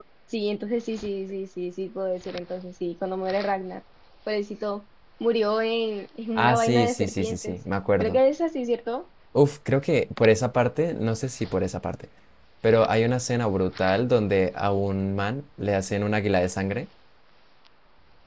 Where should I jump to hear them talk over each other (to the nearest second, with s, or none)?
6 s